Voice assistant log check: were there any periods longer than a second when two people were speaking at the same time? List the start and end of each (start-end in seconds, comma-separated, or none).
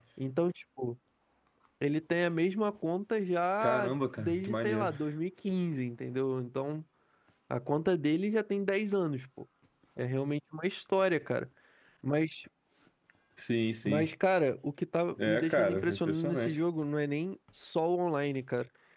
3.6-4.9, 15.2-16.6